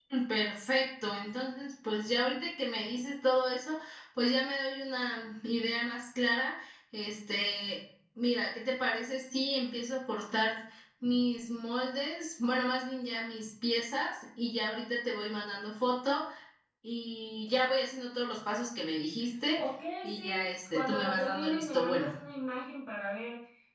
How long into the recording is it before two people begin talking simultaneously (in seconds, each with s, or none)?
20.0 s